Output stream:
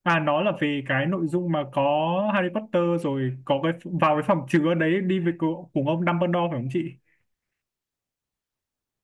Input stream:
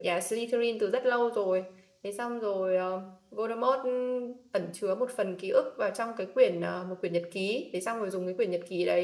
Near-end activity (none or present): present